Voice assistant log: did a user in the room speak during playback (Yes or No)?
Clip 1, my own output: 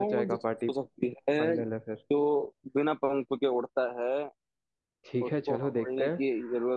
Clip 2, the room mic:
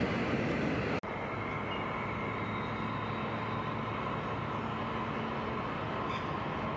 No